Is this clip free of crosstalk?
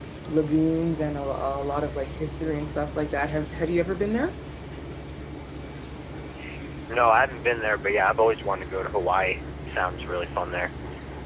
Yes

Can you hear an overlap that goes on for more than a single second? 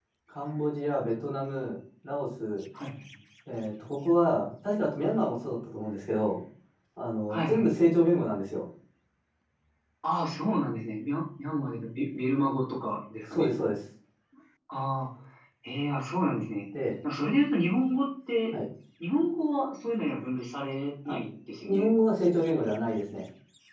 No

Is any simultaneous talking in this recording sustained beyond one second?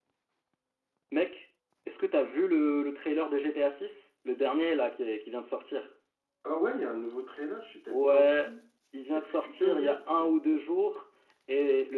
Yes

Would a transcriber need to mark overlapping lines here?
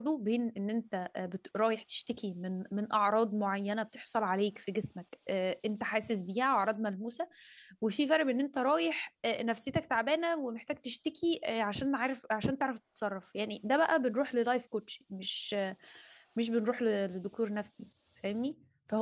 No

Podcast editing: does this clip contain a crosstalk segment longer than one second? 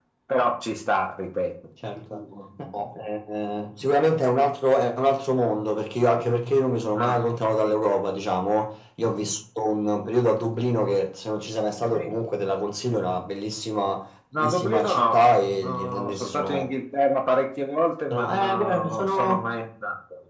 Yes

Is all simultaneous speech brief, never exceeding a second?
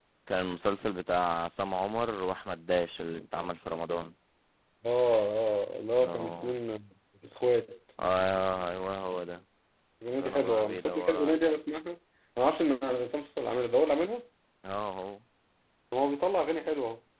No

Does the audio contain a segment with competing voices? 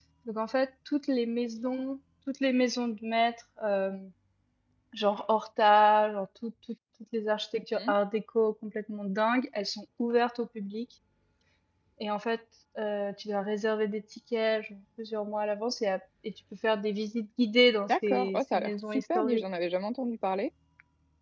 Yes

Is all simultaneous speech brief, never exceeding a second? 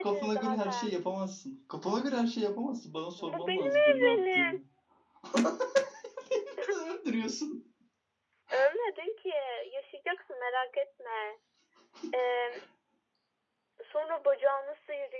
No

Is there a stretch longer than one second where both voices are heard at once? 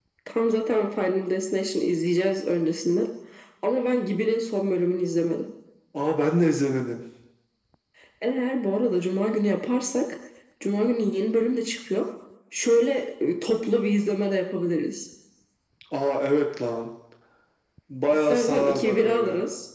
Yes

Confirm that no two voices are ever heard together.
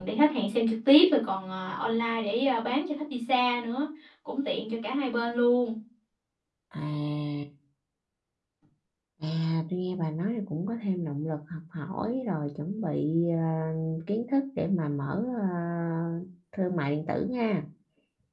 Yes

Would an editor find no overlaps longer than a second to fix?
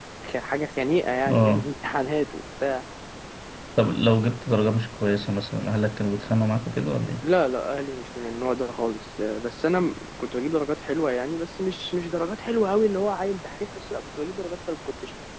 Yes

